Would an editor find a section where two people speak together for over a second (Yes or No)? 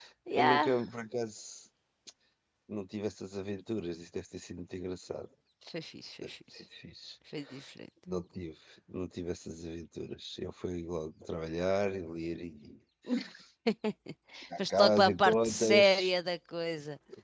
Yes